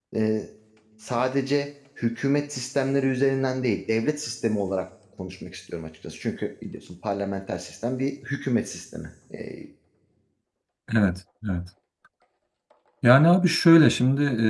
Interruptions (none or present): none